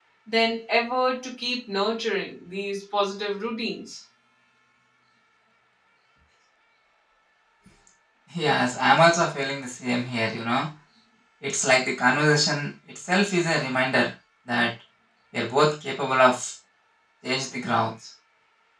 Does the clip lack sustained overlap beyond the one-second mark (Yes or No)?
Yes